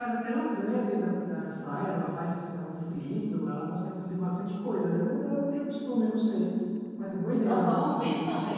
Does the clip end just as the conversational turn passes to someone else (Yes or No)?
Yes